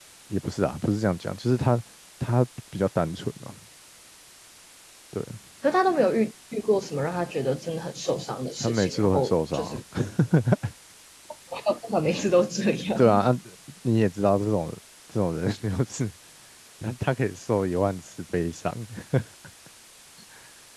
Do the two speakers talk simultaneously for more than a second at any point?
Yes, from 8.6 s

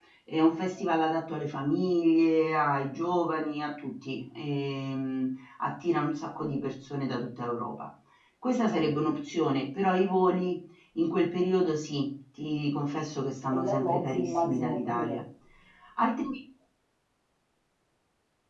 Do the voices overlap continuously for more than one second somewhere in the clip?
Yes, from 13.5 s

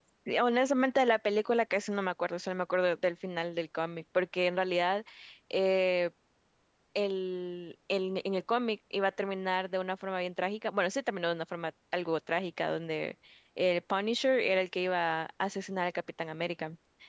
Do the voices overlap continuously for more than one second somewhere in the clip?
No

